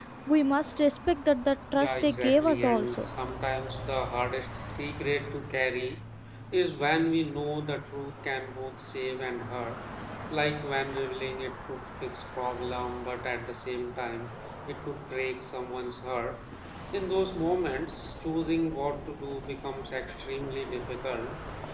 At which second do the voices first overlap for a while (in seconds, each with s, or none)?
1.7 s